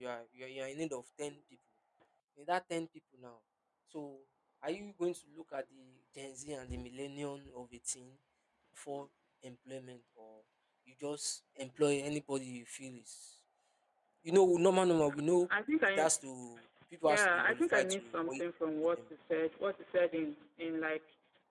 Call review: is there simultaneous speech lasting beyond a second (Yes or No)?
Yes